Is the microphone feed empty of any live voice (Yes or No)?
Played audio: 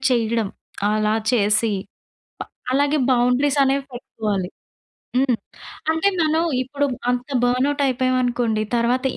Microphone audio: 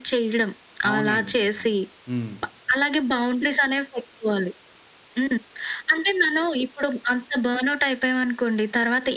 No